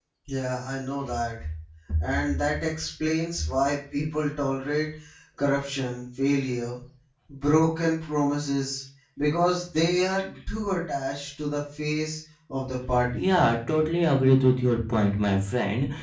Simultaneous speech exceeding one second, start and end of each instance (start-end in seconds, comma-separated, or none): none